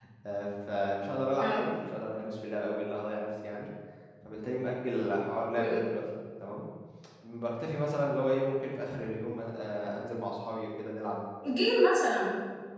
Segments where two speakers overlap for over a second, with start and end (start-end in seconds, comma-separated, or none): none